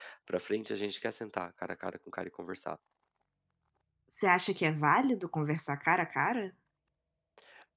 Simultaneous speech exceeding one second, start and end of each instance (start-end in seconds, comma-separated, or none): none